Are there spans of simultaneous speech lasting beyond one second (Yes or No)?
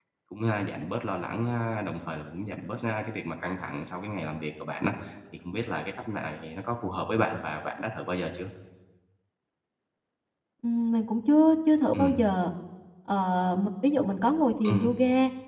No